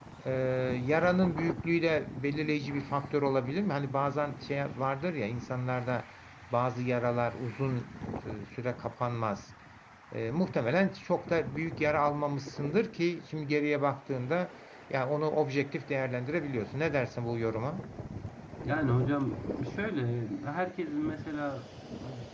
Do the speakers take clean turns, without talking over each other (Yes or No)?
Yes